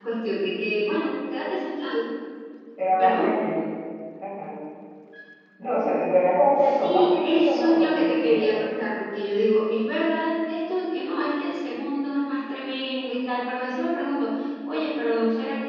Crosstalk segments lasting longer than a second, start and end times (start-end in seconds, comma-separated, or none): 6.6-8.6